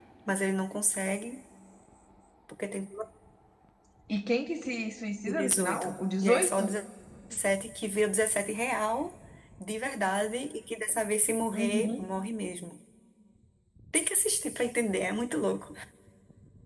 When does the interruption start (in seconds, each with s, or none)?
5.3 s